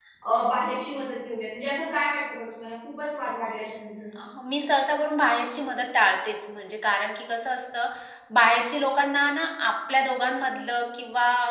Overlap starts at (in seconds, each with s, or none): none